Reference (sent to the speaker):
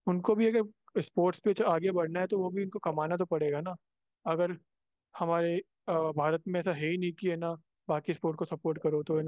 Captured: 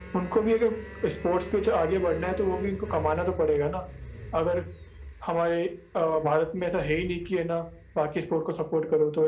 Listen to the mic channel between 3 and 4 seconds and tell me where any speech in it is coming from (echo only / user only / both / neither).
echo only